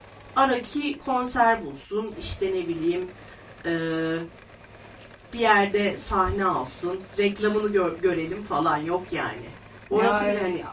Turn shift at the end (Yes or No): No